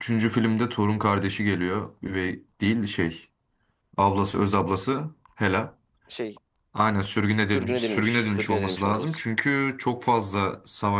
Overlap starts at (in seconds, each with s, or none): 7.5 s